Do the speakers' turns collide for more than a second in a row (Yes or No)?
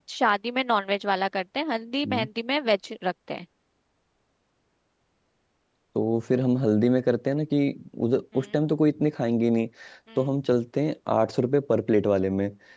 No